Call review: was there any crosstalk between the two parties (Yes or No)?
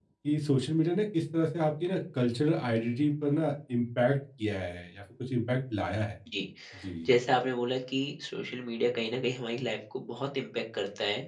No